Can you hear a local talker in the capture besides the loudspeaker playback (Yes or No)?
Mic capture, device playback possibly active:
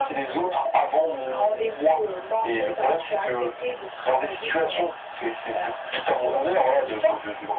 No